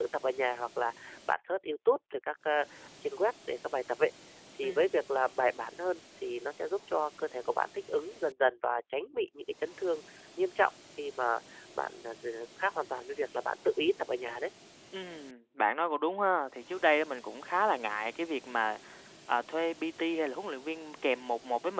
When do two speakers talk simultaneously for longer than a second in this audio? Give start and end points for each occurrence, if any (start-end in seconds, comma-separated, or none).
none